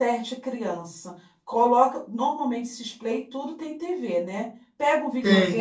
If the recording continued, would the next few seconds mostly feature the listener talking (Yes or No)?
No